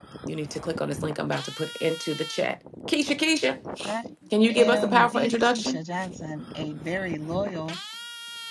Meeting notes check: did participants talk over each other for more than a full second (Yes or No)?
Yes